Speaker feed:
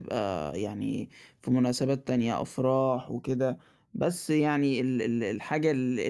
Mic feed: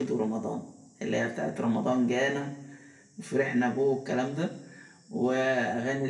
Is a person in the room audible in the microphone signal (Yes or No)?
Yes